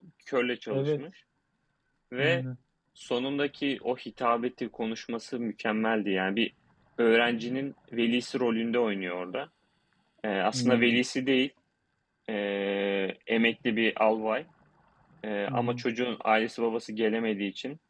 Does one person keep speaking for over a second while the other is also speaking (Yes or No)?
No